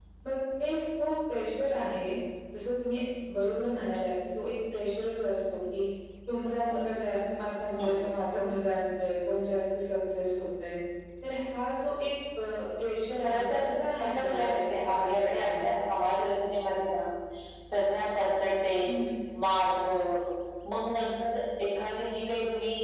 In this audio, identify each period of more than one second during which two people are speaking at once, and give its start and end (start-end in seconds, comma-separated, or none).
14.0-15.8